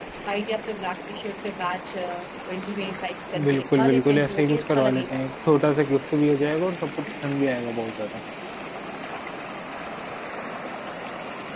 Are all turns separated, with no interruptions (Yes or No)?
No